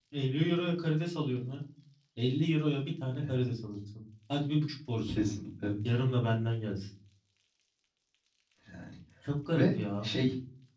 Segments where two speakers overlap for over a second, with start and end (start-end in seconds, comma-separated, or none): none